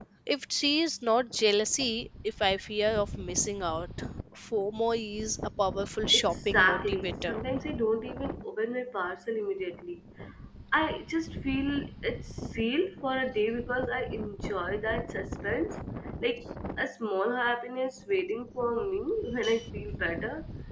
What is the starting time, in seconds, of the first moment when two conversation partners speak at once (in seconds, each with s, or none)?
6.1 s